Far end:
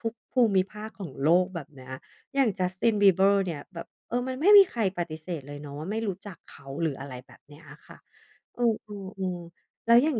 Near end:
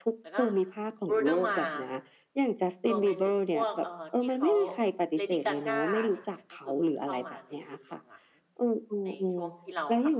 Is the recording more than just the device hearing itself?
Yes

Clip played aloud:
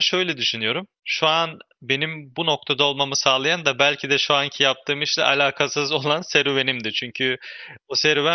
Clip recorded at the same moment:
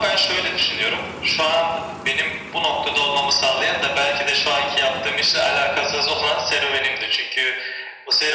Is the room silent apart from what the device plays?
Yes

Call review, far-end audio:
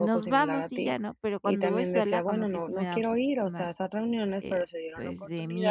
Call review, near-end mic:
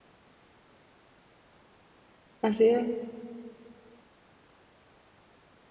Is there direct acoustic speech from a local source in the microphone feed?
Yes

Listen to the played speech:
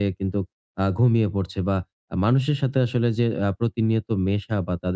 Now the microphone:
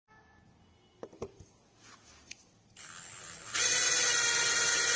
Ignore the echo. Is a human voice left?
No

